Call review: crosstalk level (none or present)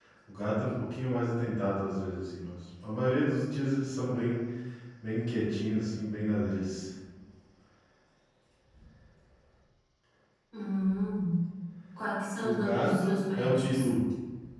present